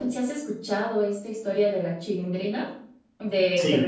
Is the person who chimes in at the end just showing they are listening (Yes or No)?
Yes